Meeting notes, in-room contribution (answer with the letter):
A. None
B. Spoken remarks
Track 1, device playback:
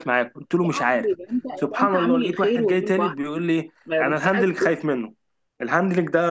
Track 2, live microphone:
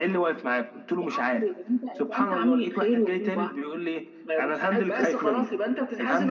B